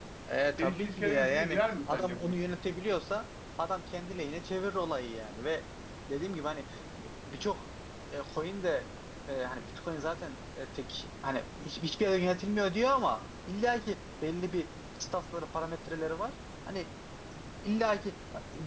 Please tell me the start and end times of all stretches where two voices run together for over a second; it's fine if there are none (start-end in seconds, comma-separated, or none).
0.6-2.4